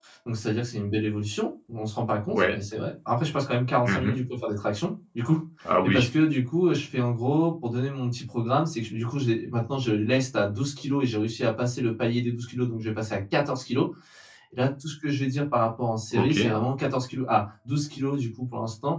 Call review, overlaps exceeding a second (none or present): none